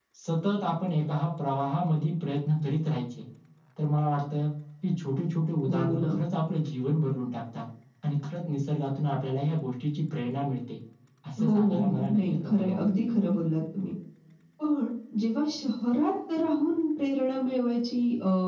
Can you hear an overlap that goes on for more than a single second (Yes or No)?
Yes